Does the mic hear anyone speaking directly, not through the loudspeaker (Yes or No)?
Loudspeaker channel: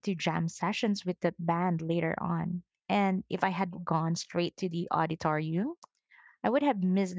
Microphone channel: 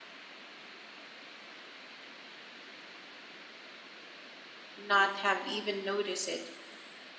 Yes